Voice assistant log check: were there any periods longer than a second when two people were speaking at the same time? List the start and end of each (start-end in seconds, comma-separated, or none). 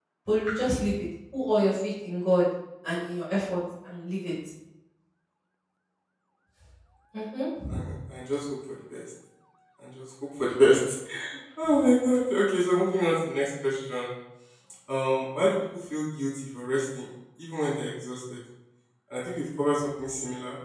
none